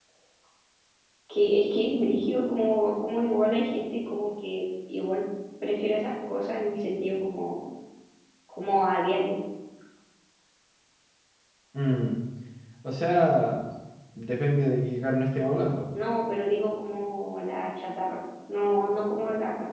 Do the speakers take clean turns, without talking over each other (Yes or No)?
Yes